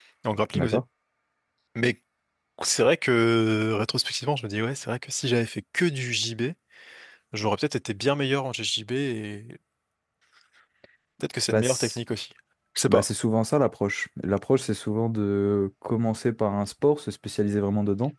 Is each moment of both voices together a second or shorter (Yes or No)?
Yes